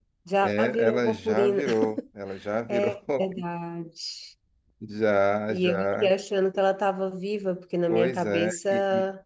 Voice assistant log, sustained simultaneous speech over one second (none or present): present